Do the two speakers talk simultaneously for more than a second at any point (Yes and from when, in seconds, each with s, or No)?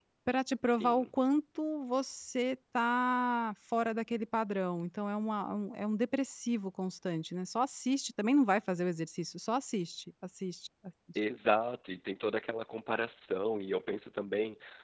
No